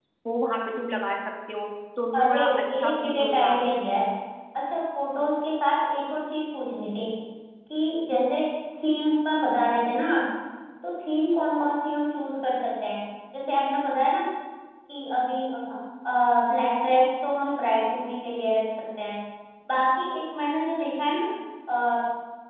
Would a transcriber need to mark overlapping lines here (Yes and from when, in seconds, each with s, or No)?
Yes, from 2.1 s